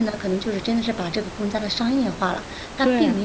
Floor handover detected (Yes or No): No